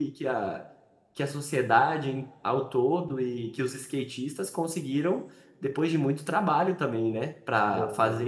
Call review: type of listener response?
listening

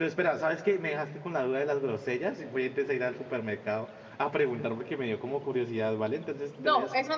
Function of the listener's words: taking over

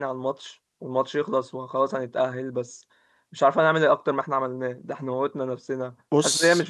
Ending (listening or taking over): listening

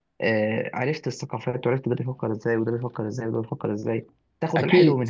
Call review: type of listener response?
listening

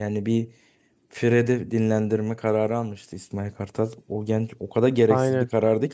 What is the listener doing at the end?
listening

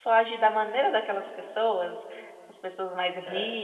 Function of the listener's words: listening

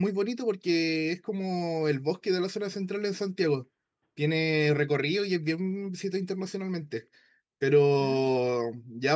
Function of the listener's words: listening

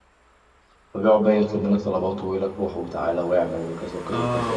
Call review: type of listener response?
taking over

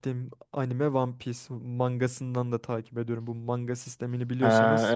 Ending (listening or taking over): taking over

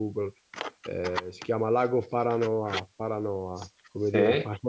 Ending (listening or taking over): listening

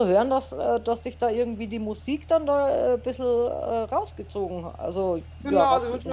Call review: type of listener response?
taking over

